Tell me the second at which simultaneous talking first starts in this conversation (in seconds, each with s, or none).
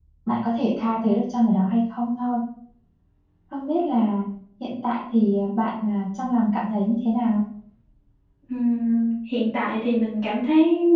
none